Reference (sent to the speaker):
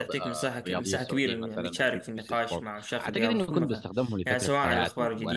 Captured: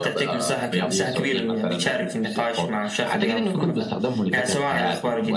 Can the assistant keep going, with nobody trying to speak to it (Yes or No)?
Yes